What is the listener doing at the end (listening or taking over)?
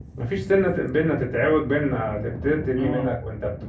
listening